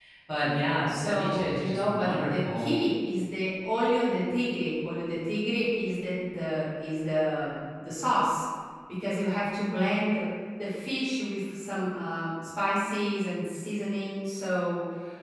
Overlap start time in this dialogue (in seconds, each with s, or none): 0.9 s